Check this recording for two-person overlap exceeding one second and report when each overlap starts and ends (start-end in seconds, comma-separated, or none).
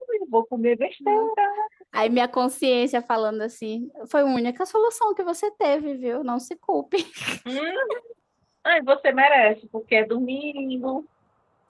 none